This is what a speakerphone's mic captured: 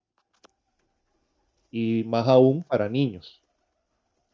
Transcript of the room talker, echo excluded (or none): y más aún para niños.